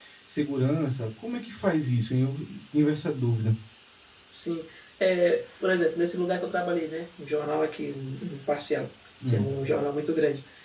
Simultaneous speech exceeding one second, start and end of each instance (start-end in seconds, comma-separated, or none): none